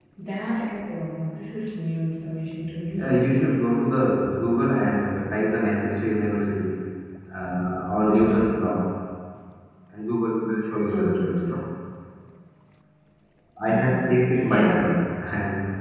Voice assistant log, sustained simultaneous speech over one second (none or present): present